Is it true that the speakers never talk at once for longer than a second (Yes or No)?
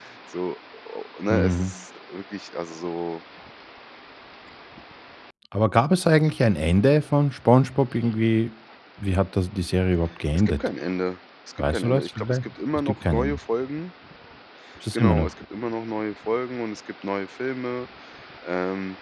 No